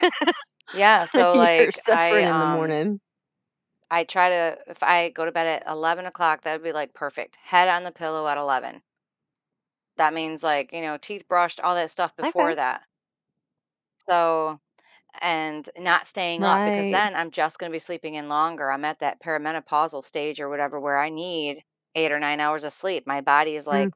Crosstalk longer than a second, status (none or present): present